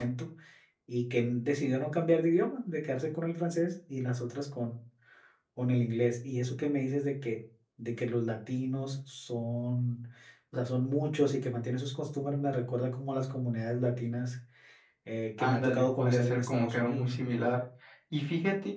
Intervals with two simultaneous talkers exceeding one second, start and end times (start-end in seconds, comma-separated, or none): 15.4-17.1